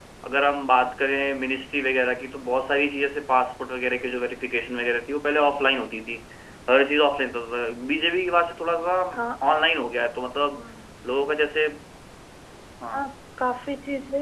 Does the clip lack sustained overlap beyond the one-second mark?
Yes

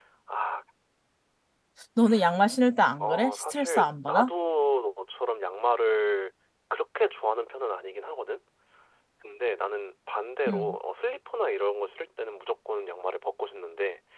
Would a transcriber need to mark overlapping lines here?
Yes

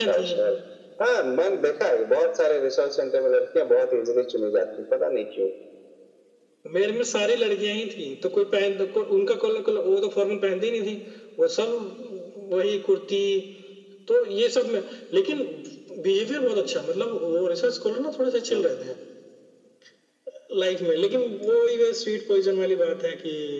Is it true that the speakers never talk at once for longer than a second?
Yes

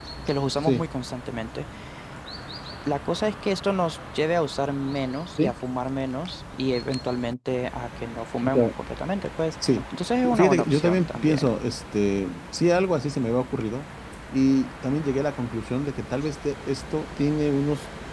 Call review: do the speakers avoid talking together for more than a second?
No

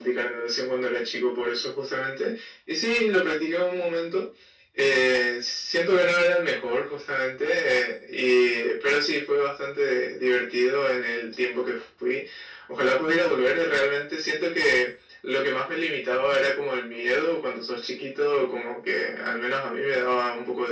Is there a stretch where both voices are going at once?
No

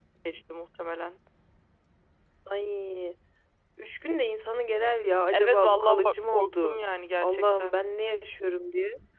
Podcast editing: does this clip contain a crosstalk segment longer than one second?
Yes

